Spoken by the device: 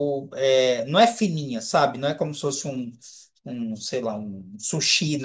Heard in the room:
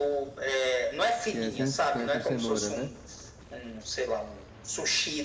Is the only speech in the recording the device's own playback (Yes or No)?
No